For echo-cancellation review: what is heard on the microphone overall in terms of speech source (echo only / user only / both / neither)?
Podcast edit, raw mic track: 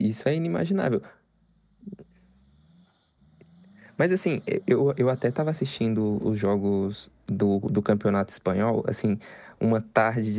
user only